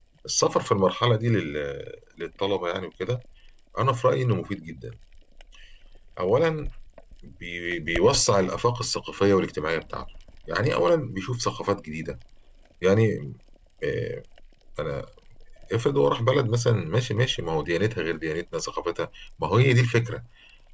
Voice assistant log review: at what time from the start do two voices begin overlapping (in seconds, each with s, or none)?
none